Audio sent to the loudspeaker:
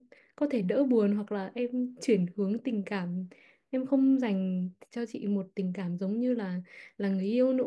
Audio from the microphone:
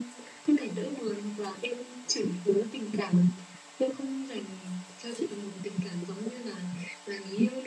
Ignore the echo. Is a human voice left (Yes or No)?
No